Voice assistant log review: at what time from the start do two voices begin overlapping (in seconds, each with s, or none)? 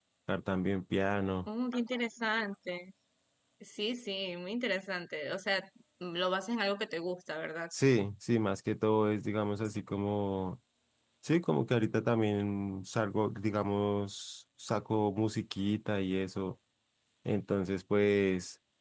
none